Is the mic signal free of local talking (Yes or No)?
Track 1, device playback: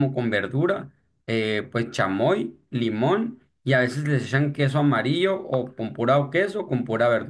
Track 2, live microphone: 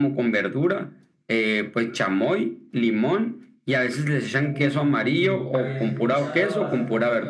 No